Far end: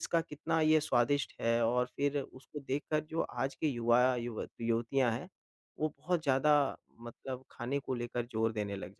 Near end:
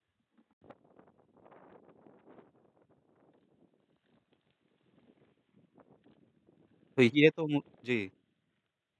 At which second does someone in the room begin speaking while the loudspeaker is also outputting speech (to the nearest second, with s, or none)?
7 s